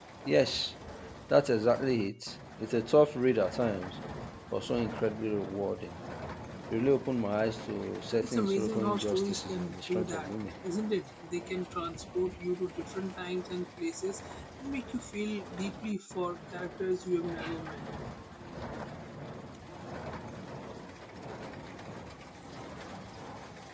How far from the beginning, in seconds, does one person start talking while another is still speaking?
8.2 s

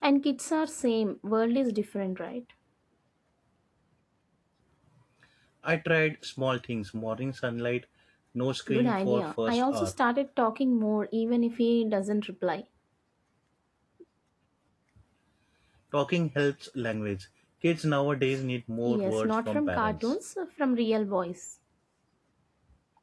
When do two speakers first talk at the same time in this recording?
8.7 s

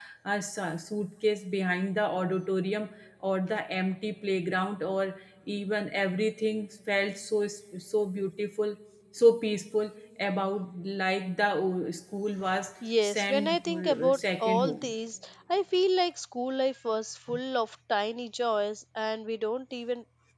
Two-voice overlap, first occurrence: 12.8 s

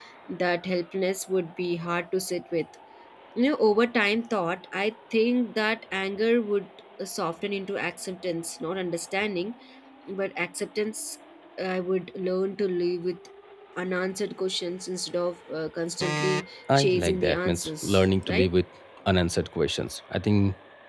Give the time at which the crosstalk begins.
16.7 s

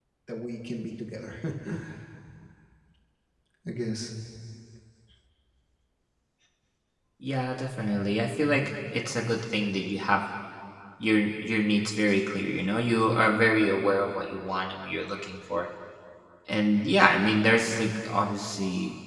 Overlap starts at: none

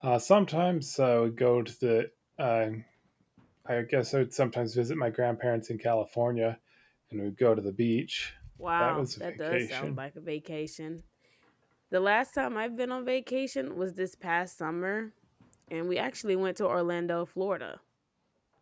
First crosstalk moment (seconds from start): 8.8 s

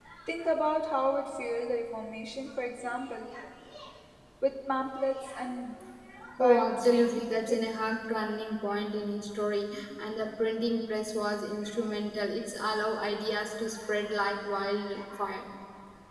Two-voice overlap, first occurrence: 6.4 s

